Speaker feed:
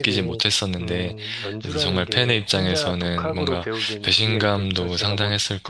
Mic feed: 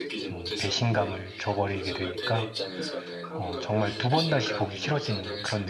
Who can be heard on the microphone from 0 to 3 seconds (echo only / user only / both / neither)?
both